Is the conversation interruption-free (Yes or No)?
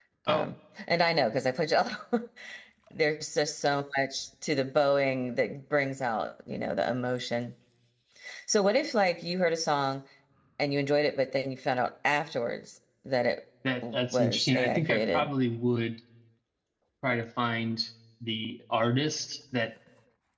No